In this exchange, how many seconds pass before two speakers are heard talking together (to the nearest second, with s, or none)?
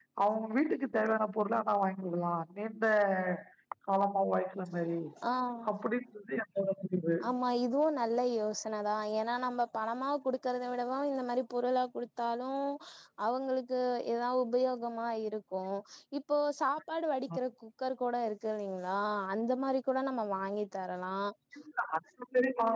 none